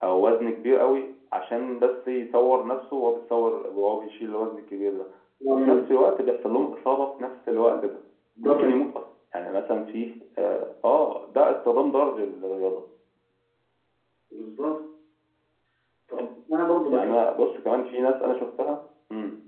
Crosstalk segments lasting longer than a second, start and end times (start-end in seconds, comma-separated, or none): none